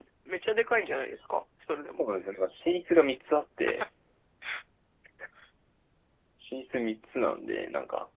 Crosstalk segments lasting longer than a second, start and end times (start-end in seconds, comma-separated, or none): none